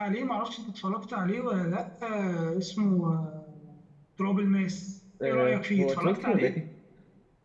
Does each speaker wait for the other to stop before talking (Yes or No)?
No